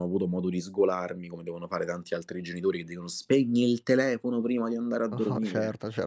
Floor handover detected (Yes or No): Yes